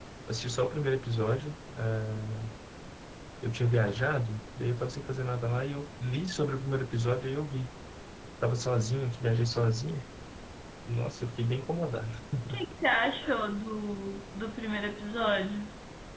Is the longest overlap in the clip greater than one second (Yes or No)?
No